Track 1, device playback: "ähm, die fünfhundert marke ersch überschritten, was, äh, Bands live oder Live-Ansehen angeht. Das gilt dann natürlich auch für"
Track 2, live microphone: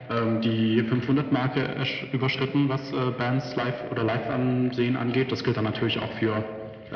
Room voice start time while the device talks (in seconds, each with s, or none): none